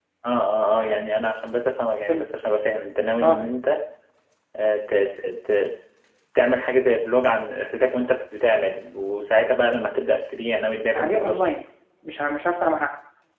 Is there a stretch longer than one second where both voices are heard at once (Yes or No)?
No